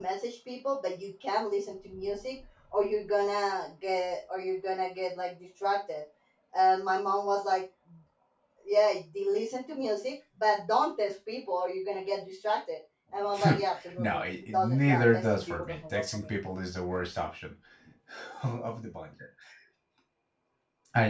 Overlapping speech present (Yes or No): Yes